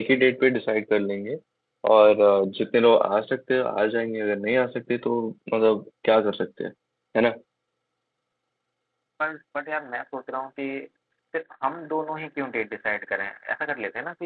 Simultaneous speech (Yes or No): No